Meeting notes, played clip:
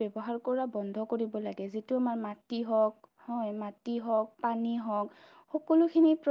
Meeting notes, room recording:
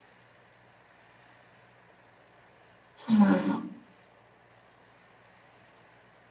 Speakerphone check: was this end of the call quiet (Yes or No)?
No